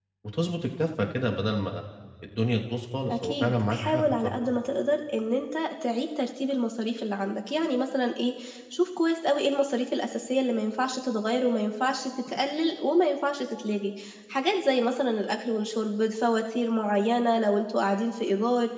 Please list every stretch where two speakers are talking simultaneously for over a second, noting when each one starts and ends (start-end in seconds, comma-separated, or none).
3.1-4.4